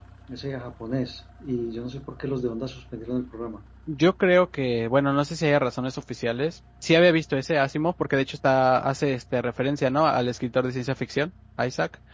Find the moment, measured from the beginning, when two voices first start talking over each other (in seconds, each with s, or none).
none